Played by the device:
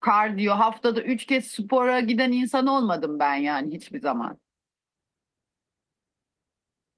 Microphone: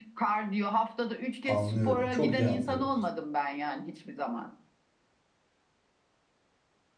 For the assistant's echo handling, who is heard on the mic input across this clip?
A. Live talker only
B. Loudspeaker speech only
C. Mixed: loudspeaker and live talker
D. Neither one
C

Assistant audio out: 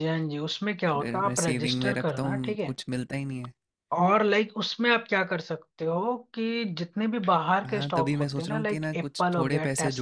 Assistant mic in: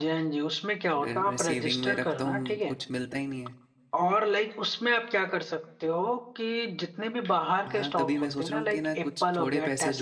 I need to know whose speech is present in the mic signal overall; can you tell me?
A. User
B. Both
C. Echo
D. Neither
C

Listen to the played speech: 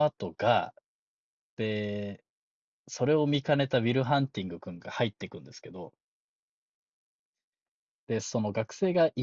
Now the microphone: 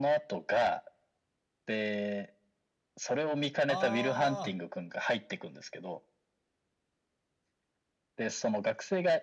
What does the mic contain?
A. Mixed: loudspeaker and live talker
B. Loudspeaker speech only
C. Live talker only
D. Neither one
A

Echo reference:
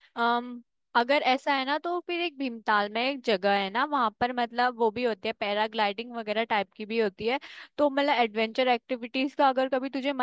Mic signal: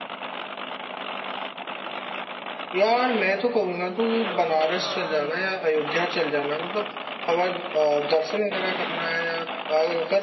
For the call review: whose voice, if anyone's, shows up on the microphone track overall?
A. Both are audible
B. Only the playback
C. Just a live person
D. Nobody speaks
C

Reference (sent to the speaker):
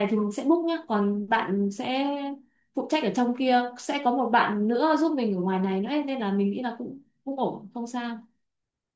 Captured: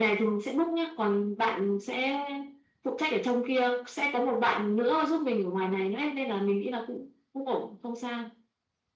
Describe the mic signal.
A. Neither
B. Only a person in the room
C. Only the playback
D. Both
C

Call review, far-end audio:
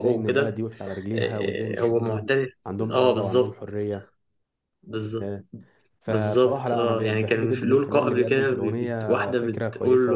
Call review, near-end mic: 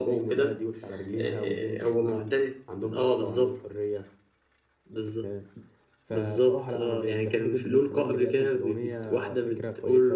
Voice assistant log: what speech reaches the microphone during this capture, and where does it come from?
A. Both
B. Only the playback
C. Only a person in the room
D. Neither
B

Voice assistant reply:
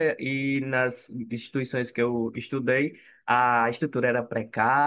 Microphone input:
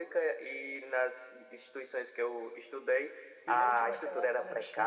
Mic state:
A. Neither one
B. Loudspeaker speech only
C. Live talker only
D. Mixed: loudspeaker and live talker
D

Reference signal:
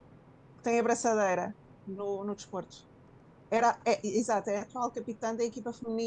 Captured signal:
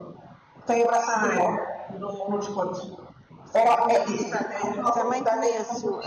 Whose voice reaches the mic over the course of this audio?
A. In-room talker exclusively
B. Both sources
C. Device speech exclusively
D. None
B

